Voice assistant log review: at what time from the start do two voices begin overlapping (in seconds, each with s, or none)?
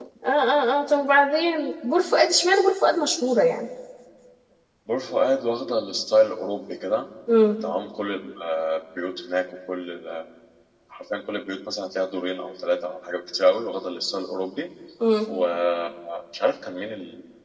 none